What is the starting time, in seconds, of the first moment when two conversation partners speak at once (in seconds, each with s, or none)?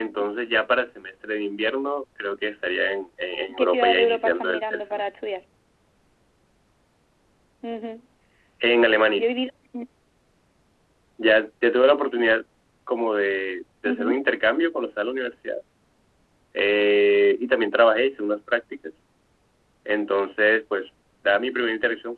3.6 s